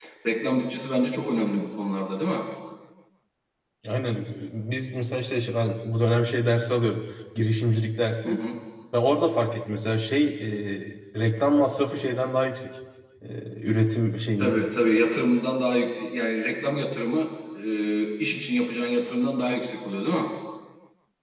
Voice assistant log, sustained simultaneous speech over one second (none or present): none